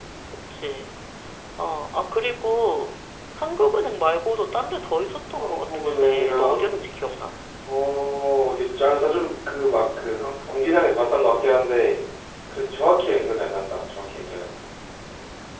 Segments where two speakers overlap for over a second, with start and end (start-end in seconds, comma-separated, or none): 5.3-6.8